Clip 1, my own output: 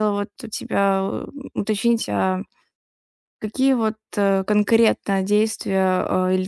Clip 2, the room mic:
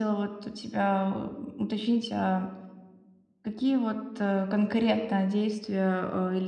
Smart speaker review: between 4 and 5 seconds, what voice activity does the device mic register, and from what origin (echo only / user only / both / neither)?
echo only